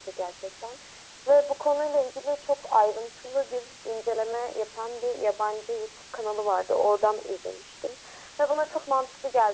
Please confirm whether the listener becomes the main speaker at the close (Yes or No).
No